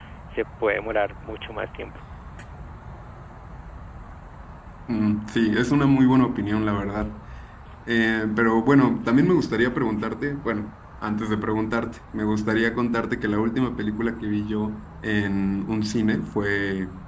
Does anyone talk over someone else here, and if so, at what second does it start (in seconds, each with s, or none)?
none